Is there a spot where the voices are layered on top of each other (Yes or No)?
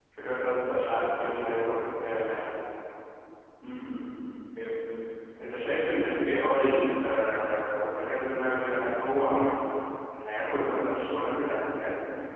No